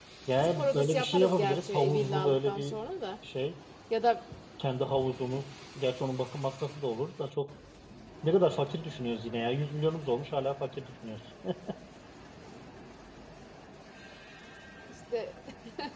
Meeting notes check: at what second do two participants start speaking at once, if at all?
1 s

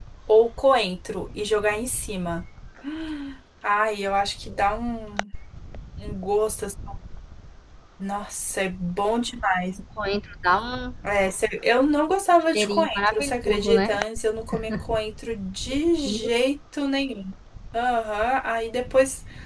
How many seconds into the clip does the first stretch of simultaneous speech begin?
13 s

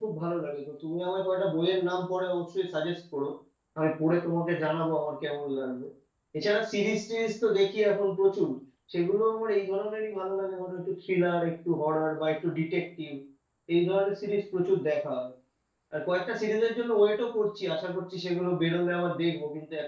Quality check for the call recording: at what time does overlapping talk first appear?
none

